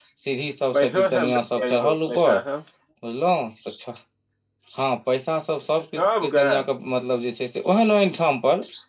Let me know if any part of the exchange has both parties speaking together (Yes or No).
Yes